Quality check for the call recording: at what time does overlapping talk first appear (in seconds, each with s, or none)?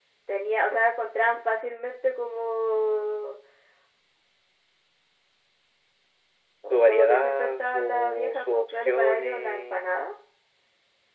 6.9 s